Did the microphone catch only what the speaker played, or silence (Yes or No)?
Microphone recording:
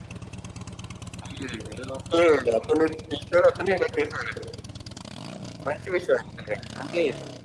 Yes